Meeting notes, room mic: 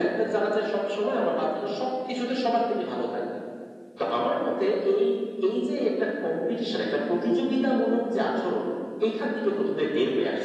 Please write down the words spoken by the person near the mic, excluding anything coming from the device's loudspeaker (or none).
none